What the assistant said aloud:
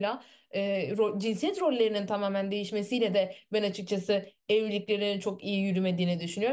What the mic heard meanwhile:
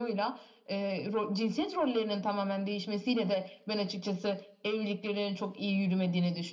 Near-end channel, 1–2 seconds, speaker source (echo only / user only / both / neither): echo only